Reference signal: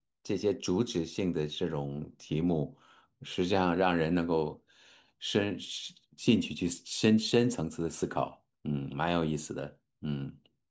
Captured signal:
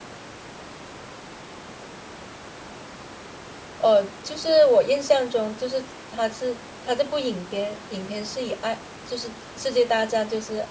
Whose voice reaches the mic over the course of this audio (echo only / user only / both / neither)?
user only